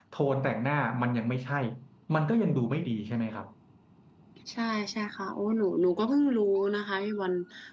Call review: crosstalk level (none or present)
none